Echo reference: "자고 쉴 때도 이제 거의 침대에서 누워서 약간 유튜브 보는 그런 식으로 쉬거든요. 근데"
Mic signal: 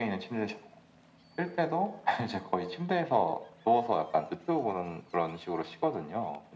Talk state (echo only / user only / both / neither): echo only